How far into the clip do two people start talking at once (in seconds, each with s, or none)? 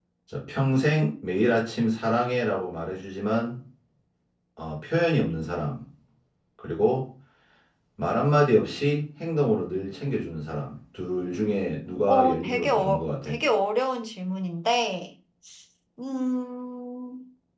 12.1 s